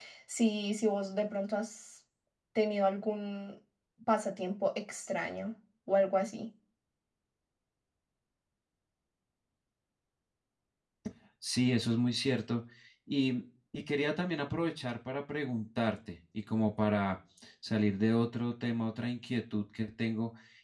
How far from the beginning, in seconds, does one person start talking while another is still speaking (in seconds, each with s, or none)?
none